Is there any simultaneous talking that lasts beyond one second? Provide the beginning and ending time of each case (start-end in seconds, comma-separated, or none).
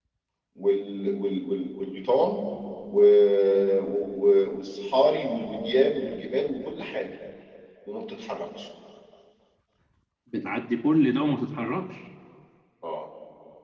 none